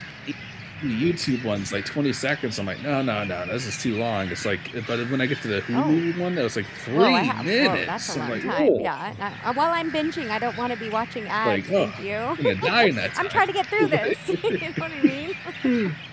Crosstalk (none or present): present